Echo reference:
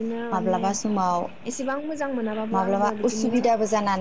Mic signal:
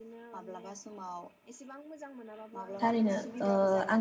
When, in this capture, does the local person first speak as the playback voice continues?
3 s

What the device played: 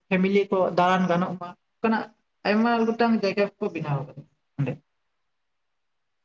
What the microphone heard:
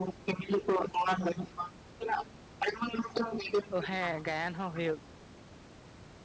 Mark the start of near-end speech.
4 s

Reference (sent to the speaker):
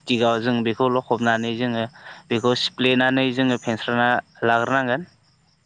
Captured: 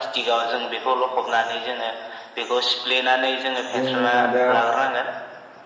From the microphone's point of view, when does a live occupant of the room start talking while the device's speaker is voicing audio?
4 s

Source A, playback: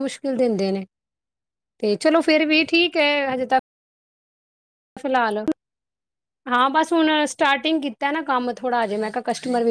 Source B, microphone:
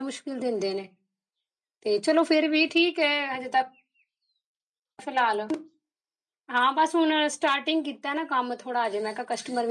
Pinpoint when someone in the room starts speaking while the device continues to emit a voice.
none

